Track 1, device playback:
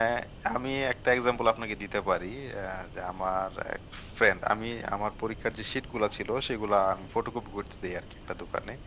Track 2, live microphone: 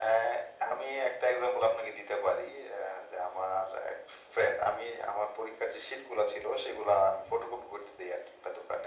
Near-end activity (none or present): none